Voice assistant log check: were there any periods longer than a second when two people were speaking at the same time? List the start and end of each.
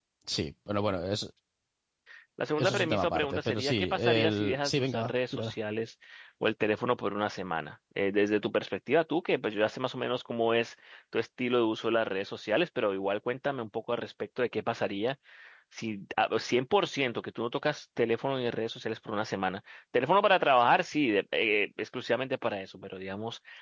2.6-5.5

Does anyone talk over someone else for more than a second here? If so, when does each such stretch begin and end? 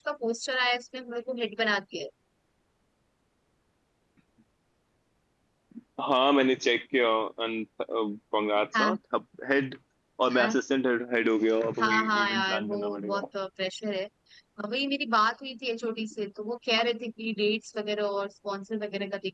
11.8-13.2

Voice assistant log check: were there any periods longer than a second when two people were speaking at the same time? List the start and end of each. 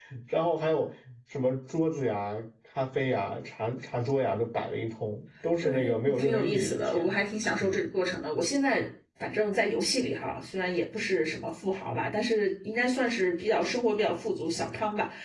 5.6-7.1

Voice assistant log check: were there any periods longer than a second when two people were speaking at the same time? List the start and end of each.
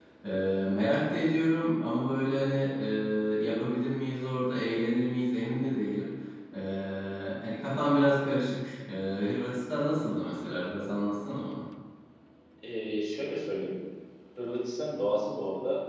none

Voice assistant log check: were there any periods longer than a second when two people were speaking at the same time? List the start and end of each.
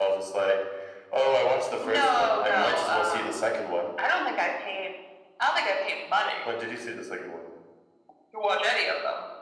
1.9-3.4

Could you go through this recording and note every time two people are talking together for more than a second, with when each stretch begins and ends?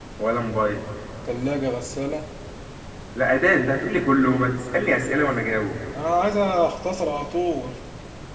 none

